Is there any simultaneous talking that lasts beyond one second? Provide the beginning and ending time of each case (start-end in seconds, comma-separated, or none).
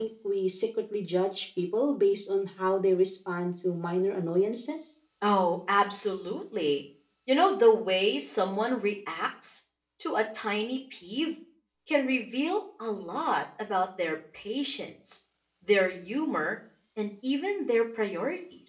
none